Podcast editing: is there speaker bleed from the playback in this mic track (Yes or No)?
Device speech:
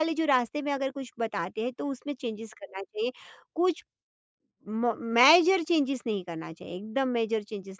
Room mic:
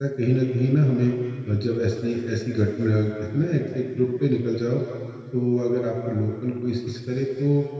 No